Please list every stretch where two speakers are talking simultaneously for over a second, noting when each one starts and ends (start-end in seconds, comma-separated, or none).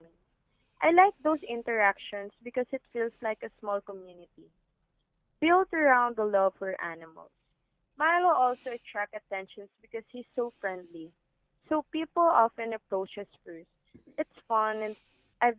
none